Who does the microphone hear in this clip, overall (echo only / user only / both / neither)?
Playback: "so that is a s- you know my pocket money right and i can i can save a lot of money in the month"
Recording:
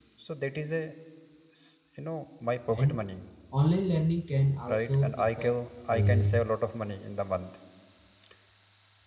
both